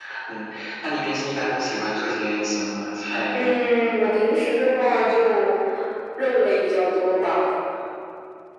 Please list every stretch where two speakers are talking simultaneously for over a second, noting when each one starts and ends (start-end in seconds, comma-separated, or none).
none